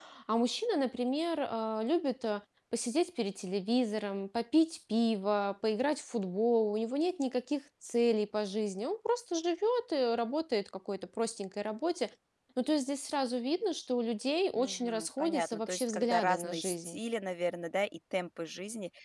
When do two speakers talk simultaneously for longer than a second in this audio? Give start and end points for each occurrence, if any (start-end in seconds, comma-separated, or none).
14.6-17.0